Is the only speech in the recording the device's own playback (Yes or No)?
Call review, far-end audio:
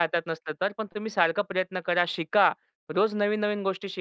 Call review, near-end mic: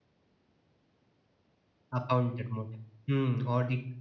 No